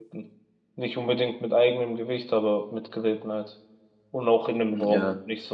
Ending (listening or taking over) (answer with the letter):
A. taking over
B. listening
A